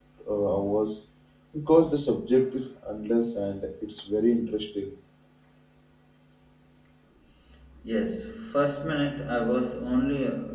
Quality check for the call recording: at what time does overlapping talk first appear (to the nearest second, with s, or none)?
none